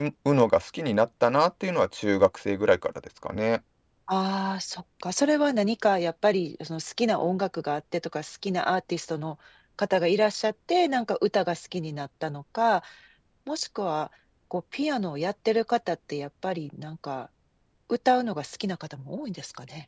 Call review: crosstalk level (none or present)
none